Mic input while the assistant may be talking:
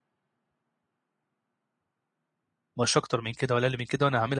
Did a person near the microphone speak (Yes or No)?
Yes